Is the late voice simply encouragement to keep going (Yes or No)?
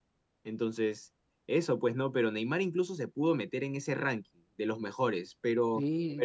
No